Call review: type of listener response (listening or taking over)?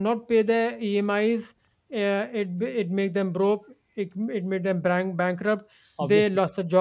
listening